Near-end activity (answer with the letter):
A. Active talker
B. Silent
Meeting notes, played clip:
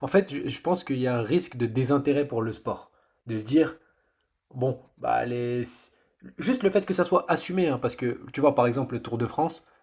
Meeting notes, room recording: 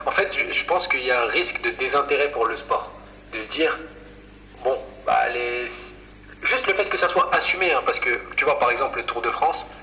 B